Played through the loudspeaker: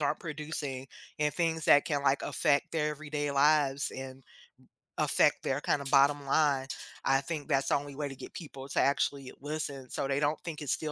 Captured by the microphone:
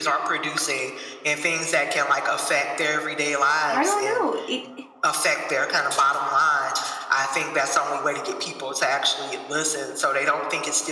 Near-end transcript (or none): I don't know, it